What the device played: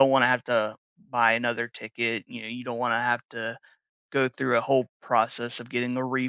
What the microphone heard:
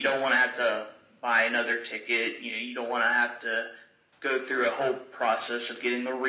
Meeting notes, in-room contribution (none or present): none